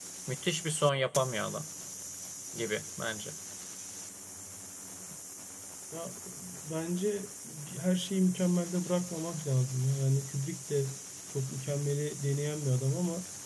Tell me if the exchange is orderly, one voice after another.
Yes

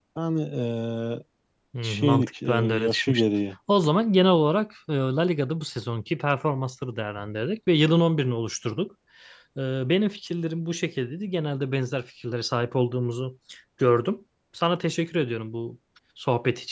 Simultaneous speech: Yes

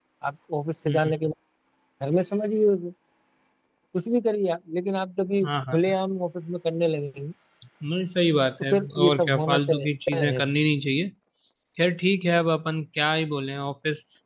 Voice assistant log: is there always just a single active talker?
No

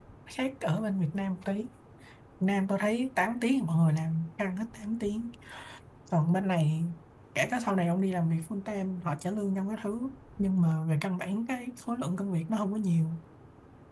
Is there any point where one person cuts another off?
No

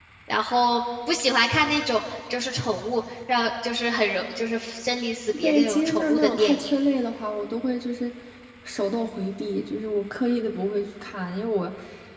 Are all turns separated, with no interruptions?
No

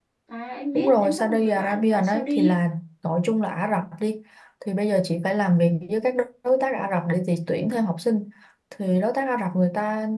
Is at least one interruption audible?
Yes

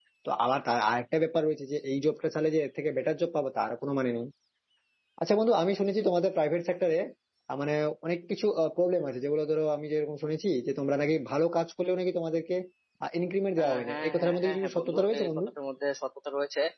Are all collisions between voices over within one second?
No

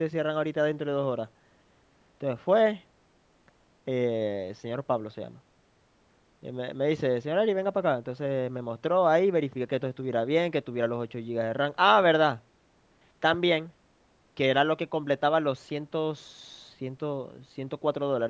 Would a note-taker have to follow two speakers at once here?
No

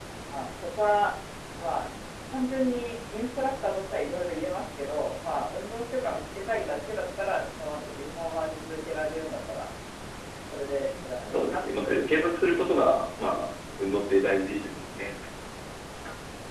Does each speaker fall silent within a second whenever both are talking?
No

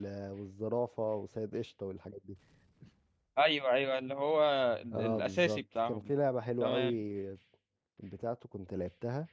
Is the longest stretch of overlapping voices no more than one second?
No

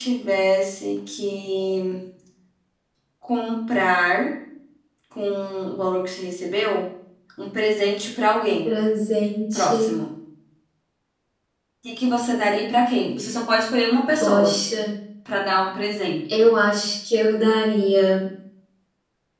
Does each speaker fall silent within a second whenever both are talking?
Yes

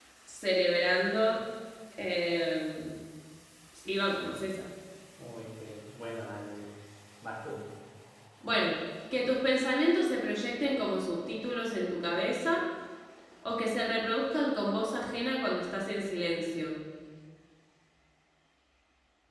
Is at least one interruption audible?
No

